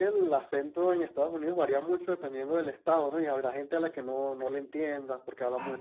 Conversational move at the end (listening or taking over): taking over